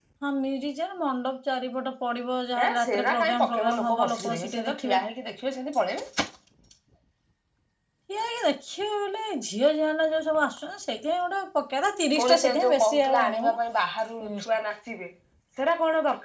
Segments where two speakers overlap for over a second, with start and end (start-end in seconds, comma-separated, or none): 2.6-4.9, 12.2-13.6